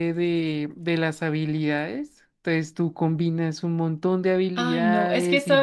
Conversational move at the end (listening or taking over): taking over